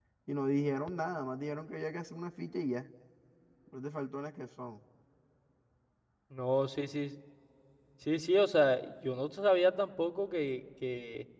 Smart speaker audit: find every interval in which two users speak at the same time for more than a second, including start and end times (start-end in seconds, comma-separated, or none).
none